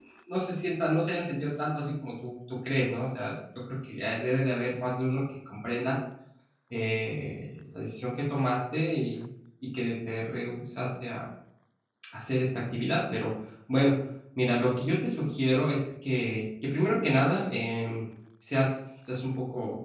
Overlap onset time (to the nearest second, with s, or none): none